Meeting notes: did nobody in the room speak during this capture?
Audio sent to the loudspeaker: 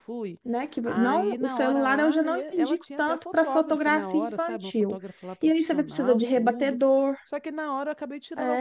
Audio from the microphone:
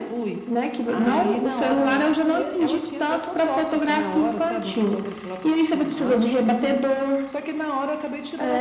Yes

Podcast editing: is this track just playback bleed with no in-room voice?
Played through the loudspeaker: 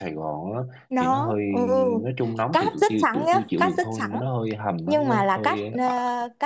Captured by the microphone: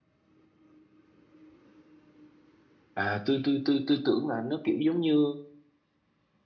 No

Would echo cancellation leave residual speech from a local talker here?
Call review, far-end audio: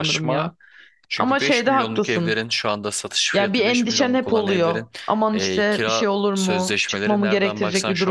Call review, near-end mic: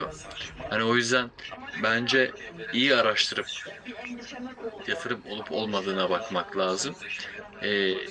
Yes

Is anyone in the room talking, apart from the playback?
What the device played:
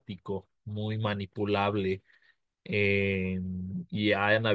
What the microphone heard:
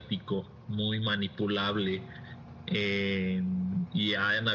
No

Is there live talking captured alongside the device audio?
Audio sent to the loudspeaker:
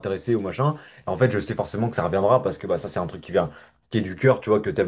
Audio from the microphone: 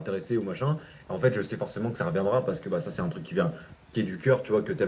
No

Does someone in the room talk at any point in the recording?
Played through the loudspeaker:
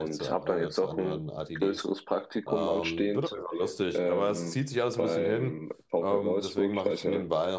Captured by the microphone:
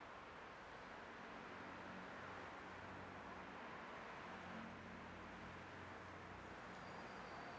No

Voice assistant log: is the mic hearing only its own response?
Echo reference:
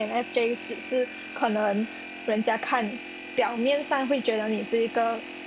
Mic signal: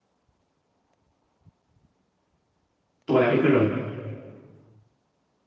No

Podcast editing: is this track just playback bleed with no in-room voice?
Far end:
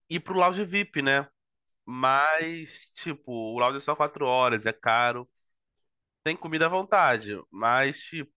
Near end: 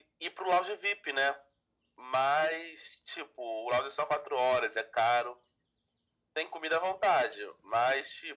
Yes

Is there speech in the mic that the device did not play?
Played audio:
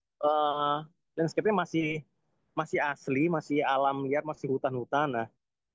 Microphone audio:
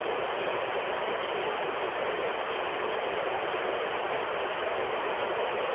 No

